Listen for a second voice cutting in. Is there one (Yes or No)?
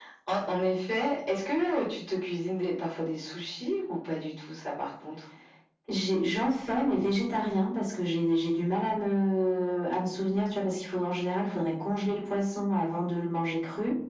No